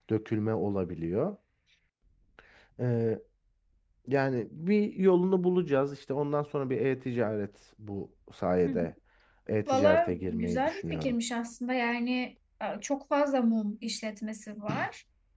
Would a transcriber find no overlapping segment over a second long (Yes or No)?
No